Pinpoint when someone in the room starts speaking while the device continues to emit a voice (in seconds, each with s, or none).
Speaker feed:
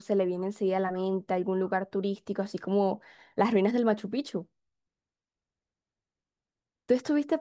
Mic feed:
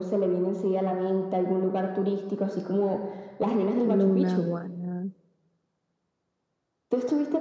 3.8 s